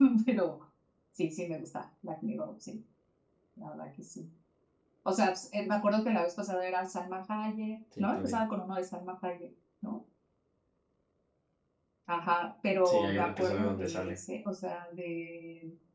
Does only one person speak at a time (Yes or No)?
No